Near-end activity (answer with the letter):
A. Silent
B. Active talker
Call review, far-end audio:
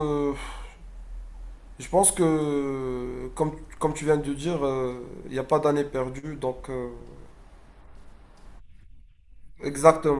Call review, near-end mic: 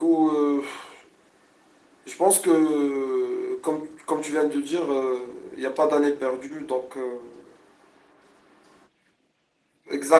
A